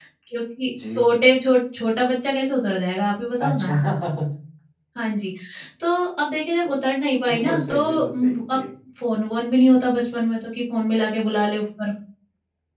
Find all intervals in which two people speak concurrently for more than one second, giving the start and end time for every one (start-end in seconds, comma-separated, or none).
7.3-8.6